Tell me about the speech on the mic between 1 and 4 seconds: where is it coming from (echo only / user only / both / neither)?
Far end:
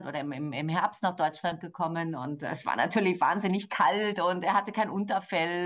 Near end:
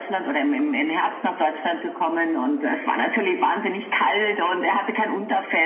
echo only